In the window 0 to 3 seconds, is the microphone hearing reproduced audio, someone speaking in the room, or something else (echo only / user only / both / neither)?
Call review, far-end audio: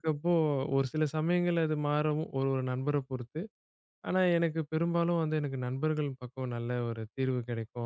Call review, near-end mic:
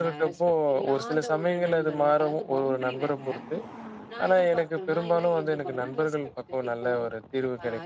both